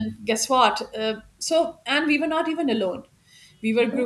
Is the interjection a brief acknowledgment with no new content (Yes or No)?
Yes